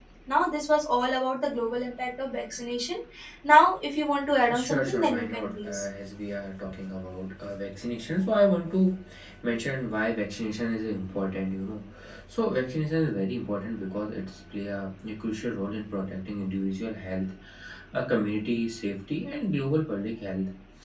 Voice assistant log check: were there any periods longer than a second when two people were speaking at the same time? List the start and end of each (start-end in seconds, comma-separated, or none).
4.5-5.8